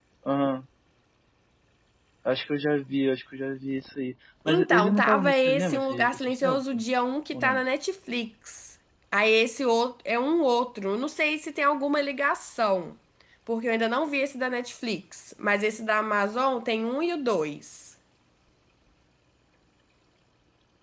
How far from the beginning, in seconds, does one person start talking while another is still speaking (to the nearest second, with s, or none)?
4 s